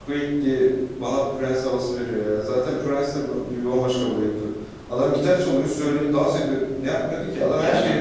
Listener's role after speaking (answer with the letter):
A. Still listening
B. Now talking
B